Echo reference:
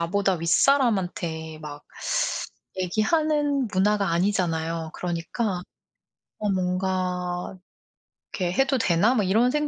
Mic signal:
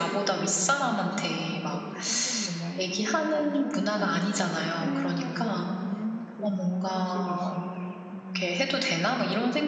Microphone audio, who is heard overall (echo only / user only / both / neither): both